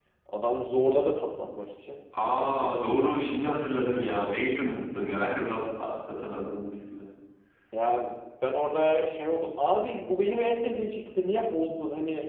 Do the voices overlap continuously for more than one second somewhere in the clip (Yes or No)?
No